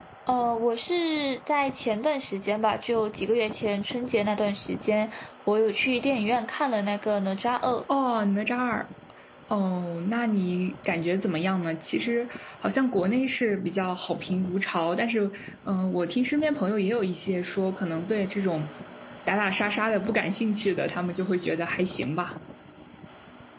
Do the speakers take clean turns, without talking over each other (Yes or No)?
Yes